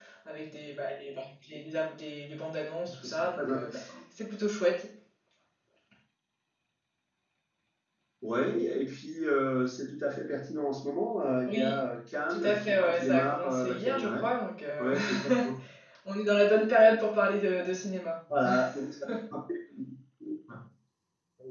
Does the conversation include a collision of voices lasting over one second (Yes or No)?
Yes